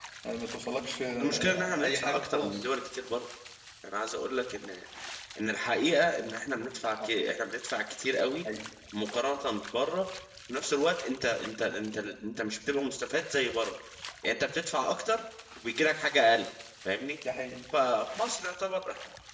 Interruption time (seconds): 1.2 s

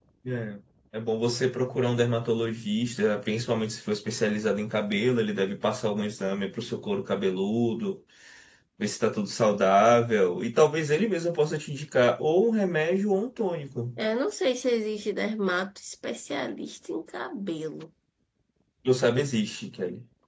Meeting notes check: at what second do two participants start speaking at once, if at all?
none

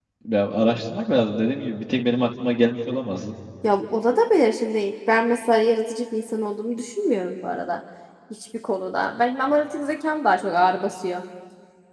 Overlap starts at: none

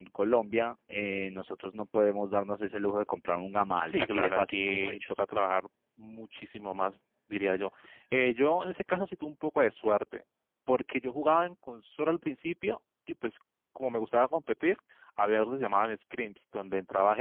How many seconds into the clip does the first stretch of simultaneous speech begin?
3.8 s

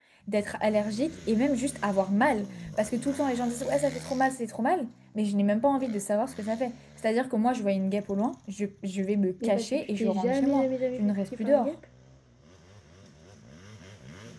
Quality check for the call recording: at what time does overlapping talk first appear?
9.4 s

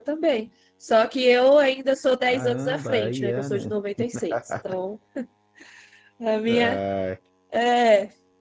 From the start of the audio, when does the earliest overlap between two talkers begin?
2.3 s

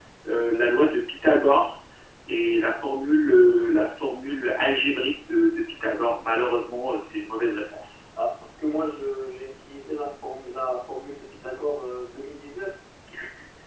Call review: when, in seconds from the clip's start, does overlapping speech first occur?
none

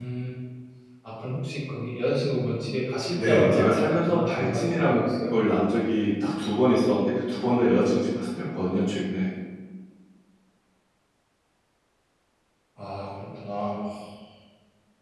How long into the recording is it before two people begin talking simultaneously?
3.2 s

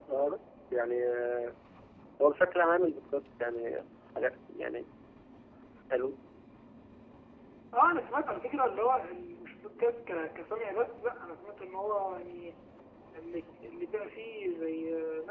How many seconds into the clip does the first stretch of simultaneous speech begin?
none

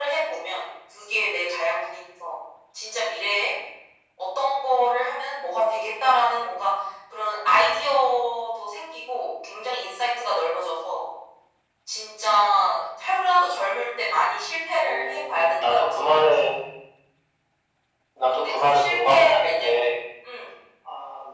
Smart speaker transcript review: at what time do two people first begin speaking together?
14.8 s

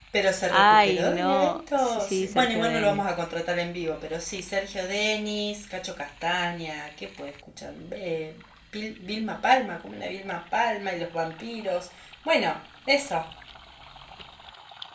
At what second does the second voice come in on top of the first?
0.5 s

